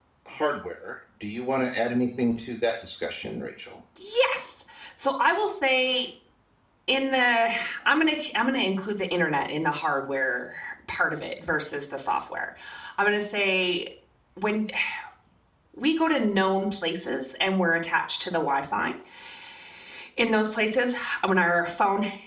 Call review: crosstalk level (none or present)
none